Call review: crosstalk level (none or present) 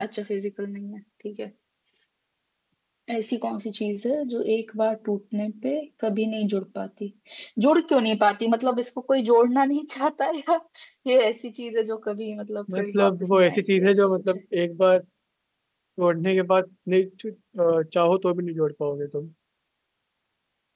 present